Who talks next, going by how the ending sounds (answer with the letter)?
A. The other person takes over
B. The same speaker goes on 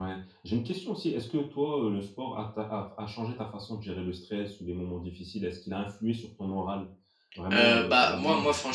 A